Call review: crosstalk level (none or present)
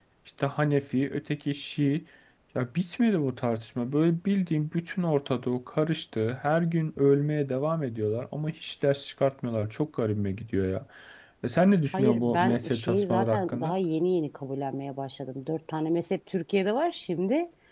present